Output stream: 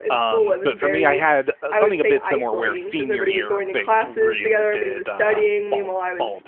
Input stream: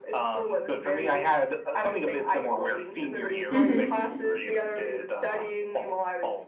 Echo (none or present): present